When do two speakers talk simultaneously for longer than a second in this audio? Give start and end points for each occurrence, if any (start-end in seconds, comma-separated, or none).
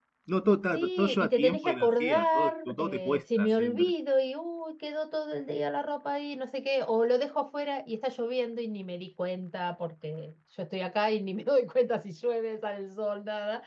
0.7-3.9